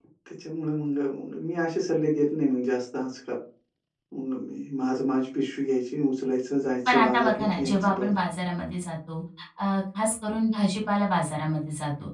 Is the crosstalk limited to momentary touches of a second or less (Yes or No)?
No